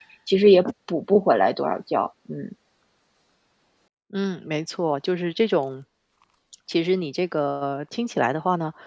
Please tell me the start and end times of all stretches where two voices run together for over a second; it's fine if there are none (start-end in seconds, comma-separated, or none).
none